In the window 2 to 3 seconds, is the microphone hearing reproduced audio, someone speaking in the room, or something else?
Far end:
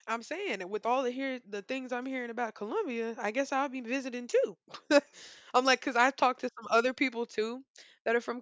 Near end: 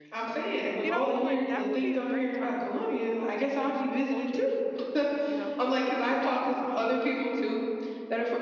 both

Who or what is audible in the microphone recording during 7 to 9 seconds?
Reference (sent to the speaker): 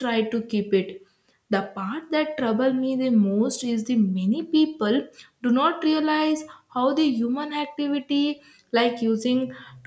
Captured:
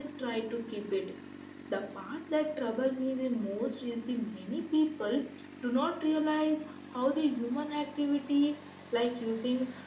echo only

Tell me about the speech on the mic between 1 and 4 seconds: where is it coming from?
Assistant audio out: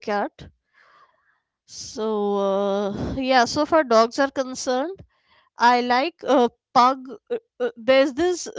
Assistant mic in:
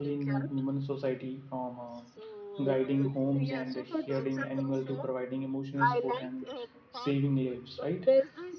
both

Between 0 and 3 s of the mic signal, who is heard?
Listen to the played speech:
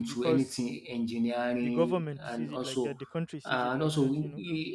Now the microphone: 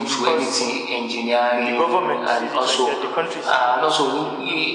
echo only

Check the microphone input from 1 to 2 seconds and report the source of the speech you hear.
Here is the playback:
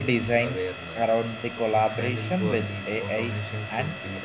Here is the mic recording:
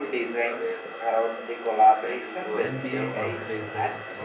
echo only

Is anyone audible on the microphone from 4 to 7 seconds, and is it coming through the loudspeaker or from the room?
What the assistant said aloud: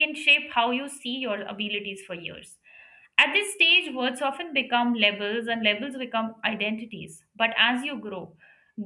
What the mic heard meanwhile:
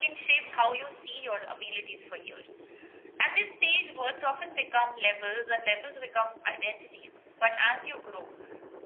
echo only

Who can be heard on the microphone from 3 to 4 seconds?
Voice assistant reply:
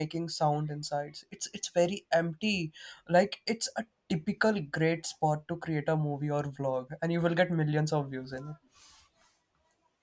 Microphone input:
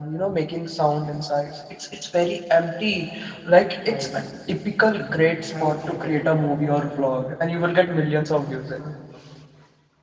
both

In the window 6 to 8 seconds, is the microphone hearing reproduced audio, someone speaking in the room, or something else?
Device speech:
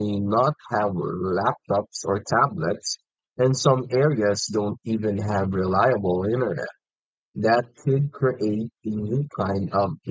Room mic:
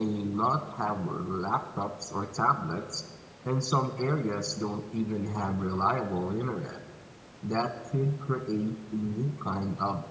echo only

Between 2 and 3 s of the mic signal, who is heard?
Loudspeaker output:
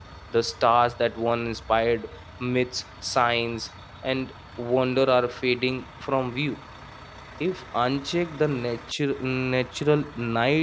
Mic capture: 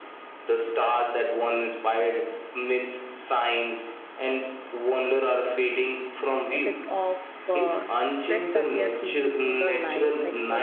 echo only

